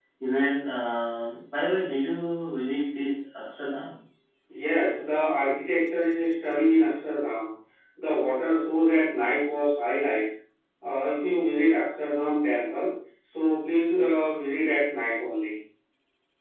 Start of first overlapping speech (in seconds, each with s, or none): none